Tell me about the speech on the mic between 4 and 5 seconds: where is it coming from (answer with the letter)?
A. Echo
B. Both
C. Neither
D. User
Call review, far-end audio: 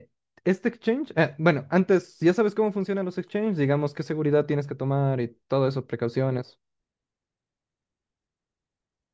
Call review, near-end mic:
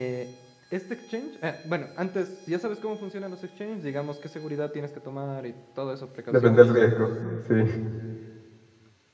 A